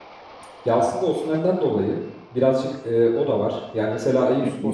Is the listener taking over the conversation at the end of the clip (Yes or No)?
Yes